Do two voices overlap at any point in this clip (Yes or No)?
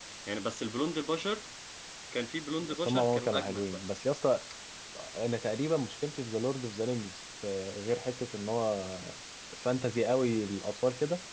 Yes